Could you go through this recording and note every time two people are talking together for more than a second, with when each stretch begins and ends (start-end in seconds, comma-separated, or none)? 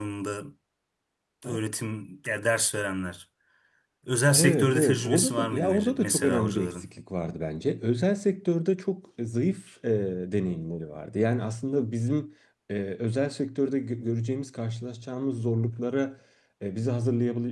4.4-6.8